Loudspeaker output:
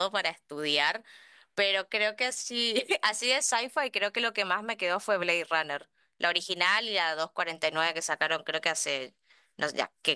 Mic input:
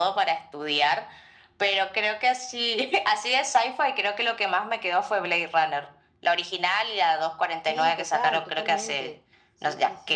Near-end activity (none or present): present